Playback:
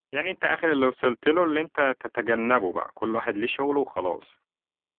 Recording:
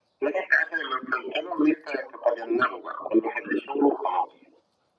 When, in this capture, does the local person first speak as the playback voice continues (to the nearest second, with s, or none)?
none